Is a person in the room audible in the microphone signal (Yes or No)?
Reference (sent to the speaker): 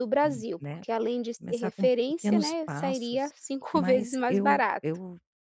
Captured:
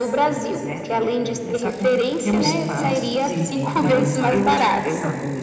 Yes